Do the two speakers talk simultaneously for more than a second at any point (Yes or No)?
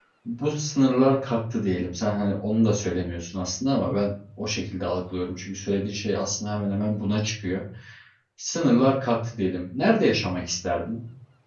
No